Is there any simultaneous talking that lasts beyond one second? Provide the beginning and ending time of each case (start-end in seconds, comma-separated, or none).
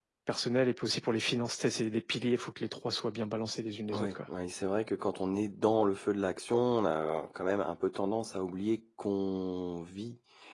none